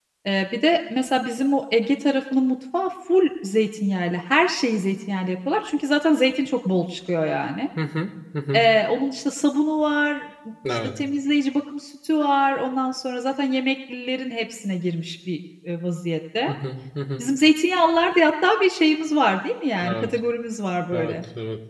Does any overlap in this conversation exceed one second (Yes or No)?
No